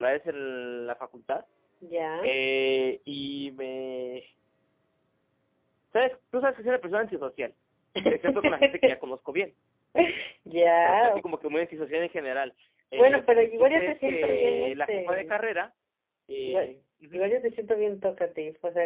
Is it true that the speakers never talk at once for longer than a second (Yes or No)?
No